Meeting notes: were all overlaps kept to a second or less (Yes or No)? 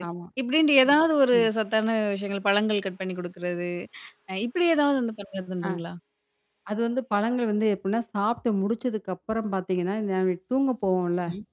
Yes